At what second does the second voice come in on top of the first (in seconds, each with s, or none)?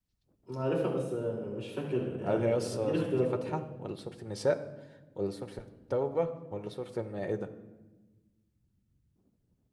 2.2 s